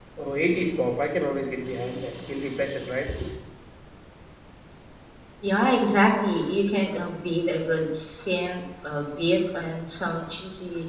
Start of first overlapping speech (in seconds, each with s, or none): none